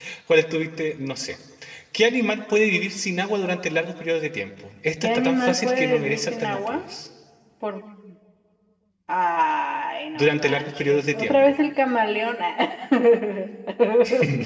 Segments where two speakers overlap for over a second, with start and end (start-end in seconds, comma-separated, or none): 5.0-6.8, 10.2-11.6